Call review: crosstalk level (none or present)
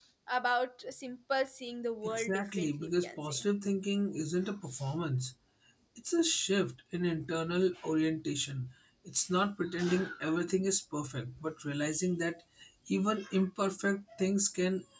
present